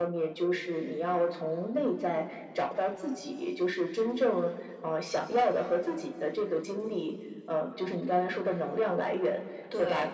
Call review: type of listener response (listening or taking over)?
listening